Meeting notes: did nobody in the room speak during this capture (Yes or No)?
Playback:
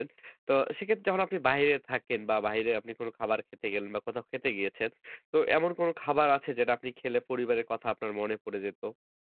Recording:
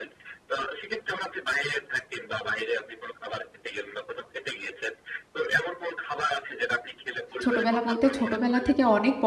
No